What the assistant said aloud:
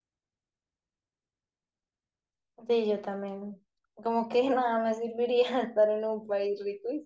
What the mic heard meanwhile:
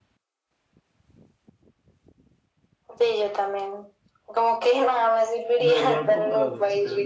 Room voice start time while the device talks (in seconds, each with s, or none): 5.6 s